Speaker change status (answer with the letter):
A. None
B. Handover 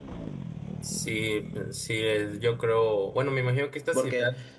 A